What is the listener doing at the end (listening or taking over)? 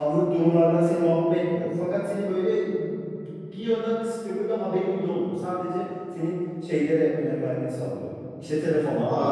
listening